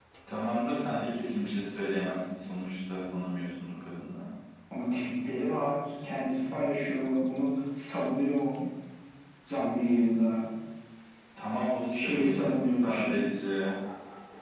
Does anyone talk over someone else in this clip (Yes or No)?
Yes